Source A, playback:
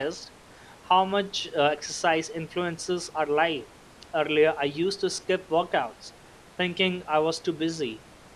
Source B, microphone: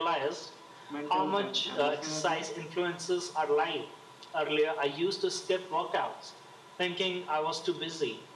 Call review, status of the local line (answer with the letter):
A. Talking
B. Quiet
A